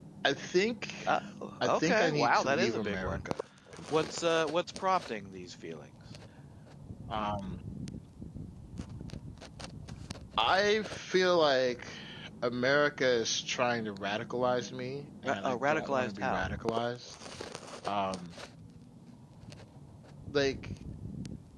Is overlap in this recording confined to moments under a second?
No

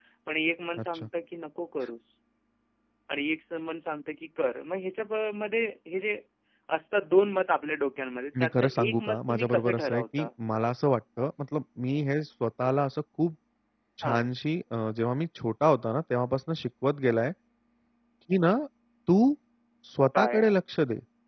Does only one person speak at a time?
No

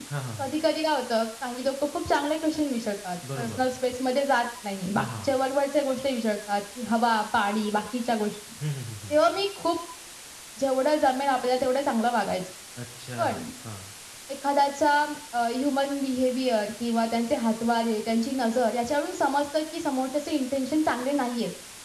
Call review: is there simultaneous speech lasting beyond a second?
No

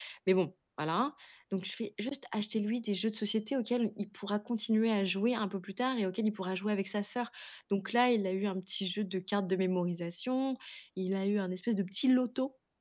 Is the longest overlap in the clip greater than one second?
No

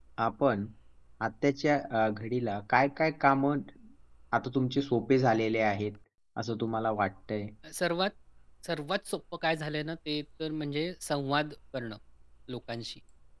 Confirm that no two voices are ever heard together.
Yes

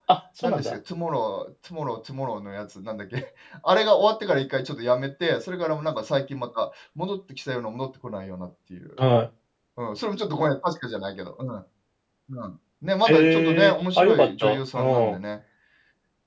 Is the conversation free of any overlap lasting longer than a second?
No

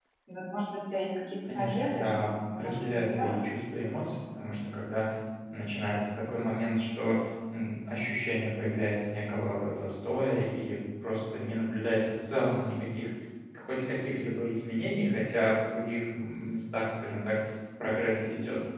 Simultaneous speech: Yes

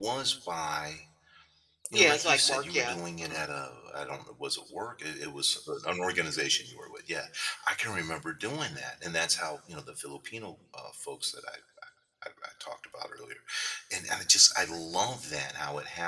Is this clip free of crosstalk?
No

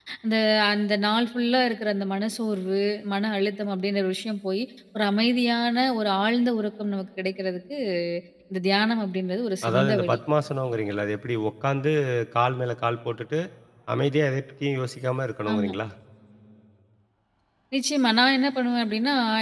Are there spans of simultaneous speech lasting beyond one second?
No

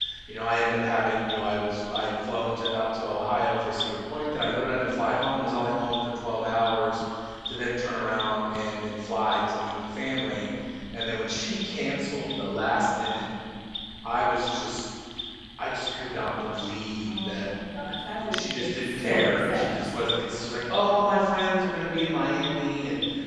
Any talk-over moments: Yes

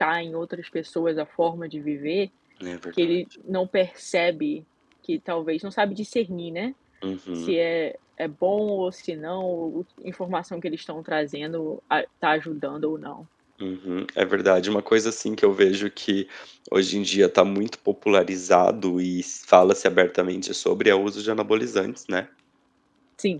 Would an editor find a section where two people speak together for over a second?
No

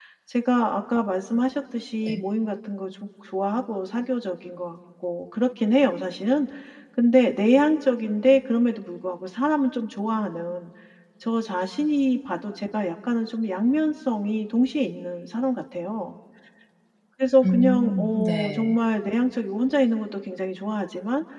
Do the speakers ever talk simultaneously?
Yes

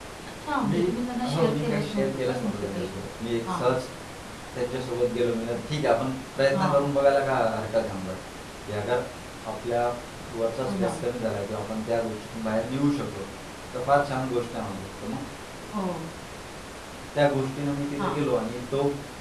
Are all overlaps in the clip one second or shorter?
No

